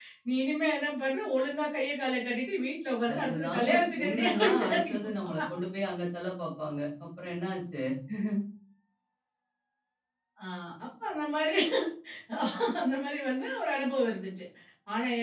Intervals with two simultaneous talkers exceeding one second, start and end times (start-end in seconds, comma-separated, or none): 3.1-5.0